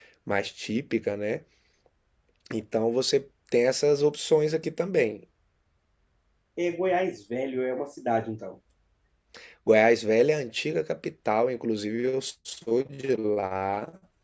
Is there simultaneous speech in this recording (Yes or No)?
No